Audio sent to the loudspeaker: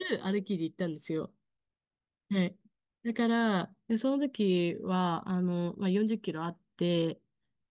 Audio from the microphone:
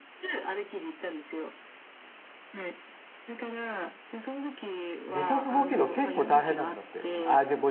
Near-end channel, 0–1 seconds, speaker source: echo only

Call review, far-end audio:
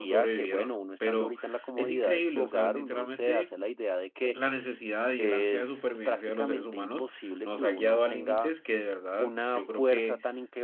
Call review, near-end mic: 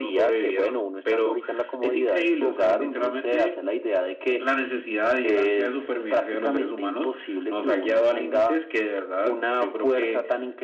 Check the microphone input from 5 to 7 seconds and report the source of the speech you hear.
echo only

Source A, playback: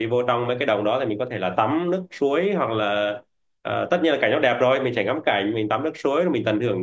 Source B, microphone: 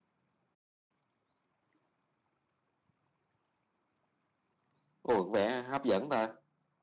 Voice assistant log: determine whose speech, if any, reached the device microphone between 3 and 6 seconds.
user only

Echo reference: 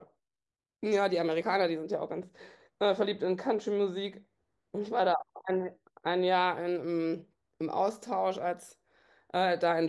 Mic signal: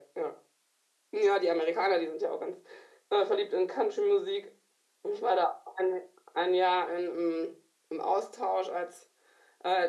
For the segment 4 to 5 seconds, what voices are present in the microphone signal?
echo only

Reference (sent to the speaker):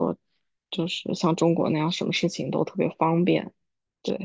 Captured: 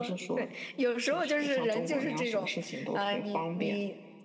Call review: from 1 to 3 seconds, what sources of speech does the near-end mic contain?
both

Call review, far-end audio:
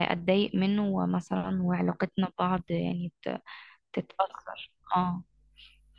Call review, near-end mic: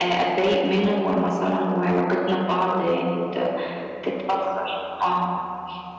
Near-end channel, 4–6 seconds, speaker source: echo only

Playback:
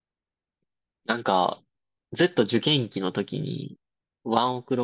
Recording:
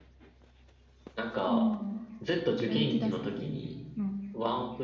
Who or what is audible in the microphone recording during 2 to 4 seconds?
both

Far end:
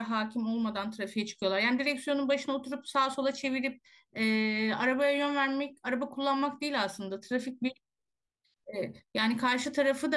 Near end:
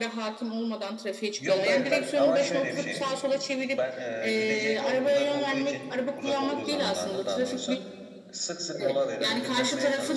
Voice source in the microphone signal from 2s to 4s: both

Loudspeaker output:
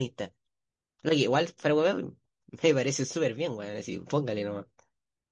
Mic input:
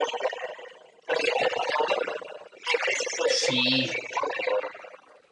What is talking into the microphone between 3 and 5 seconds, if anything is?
both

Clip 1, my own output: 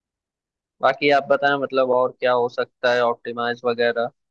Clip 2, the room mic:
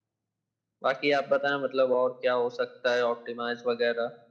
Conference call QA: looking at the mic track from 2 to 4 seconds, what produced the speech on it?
echo only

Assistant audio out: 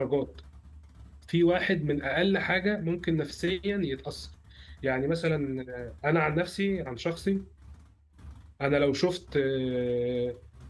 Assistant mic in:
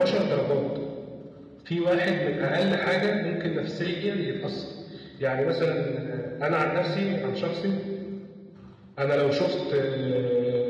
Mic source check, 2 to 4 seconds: echo only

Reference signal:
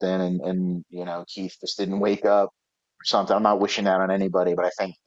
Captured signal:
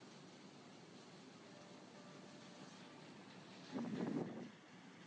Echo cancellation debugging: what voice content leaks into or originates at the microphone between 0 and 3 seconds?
neither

